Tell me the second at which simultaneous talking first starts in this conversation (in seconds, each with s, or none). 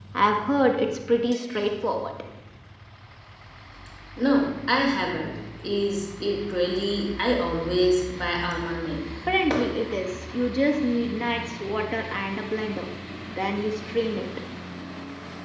none